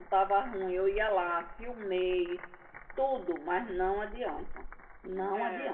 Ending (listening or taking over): listening